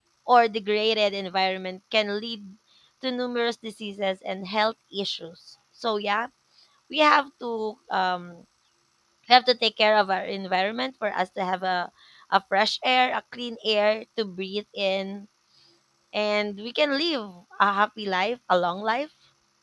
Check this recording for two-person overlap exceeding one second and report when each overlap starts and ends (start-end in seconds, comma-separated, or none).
none